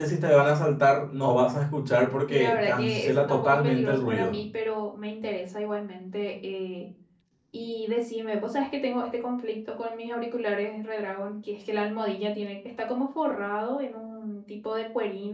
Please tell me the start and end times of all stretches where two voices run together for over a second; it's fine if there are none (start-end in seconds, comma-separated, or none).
2.3-4.4